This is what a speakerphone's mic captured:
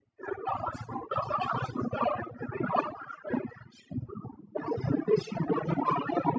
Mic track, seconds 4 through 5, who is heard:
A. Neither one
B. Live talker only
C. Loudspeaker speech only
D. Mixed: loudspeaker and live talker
C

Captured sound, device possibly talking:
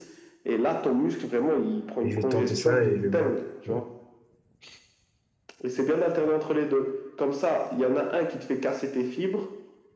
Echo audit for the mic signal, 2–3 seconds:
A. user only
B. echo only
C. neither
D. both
D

